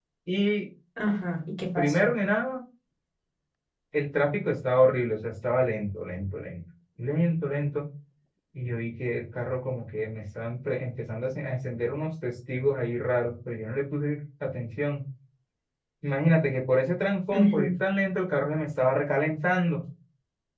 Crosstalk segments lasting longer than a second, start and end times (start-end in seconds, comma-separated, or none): none